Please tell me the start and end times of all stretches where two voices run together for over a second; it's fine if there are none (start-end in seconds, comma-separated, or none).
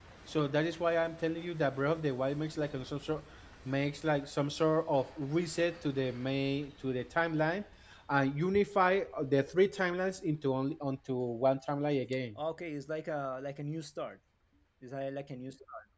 none